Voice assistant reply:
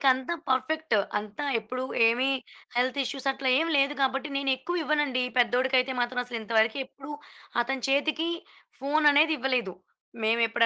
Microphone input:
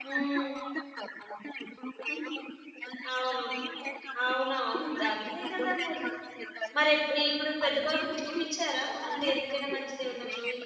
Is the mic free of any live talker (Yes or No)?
No